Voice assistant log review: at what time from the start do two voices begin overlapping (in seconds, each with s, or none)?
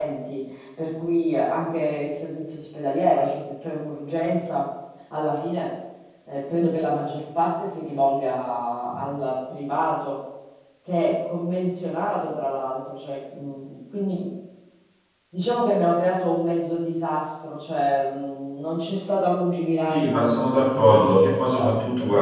19.9 s